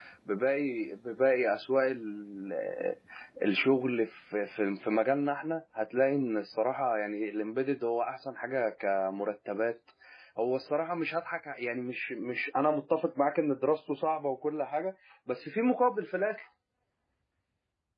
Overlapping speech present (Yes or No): No